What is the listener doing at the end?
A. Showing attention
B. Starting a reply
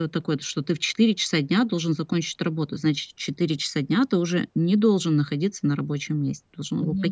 B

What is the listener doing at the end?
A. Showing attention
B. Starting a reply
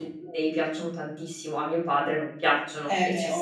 B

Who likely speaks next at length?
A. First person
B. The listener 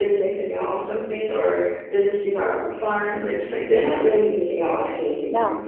A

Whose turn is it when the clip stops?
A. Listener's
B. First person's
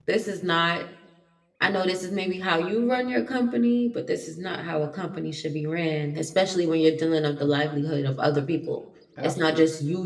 B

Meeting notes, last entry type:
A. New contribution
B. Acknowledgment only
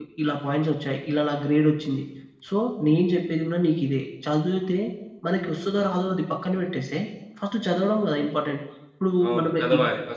A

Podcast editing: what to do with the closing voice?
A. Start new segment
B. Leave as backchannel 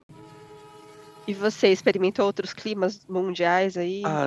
A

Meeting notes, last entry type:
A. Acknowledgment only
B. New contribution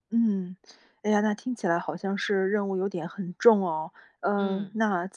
A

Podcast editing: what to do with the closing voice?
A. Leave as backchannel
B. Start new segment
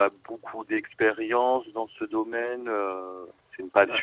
A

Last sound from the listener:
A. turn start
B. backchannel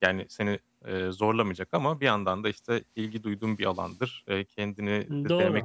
B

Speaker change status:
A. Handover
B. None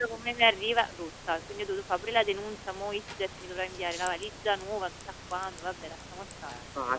A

